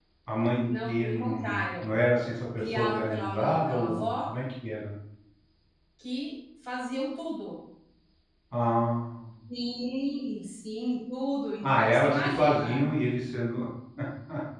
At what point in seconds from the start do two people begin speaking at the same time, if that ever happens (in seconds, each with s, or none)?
0.7 s